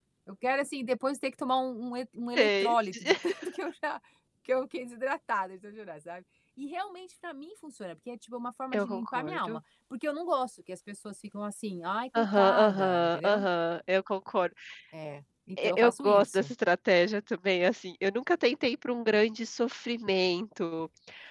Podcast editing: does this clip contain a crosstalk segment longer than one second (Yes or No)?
Yes